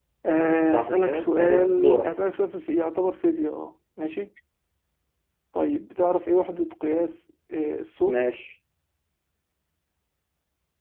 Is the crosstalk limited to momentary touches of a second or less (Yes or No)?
No